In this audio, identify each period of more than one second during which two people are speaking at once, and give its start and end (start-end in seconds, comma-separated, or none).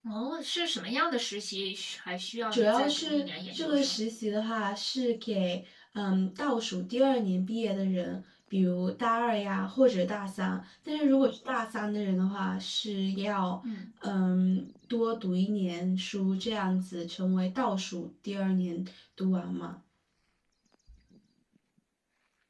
2.5-4.0